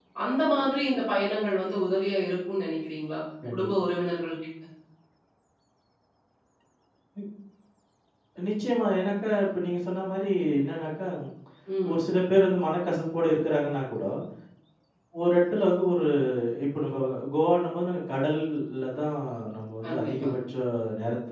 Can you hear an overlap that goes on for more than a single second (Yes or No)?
No